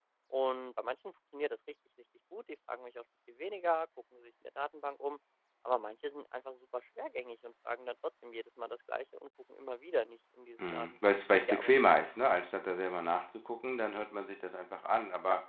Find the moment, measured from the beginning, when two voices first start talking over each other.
10.6 s

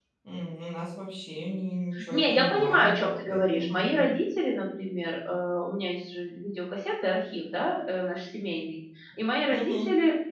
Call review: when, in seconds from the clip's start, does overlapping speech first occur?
2.1 s

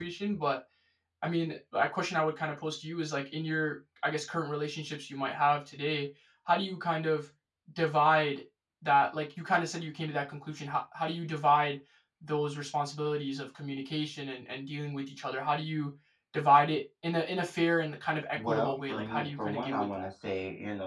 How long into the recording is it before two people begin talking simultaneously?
18.4 s

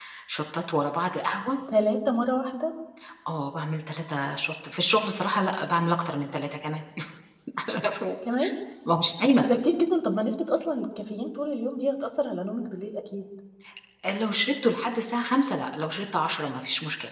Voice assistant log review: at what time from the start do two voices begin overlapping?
none

